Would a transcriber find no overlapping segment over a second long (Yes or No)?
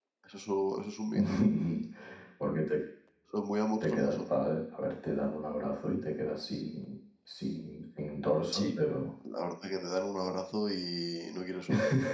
Yes